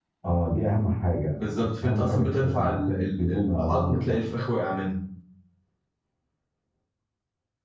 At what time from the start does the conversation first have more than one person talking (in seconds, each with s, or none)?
1.4 s